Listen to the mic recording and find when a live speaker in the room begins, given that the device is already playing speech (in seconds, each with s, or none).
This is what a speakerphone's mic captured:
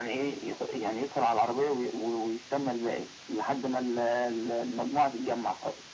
none